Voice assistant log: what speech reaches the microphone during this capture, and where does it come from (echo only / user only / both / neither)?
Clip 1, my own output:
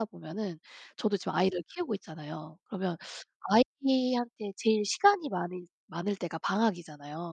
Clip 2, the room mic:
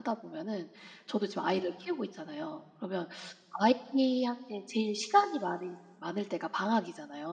echo only